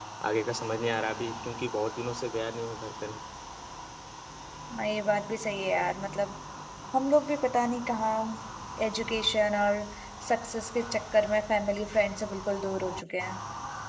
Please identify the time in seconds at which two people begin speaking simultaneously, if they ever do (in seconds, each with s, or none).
none